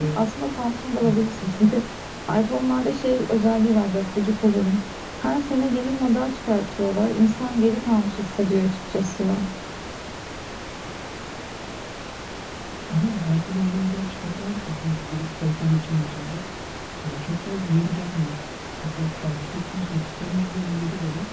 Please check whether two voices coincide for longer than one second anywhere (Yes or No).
No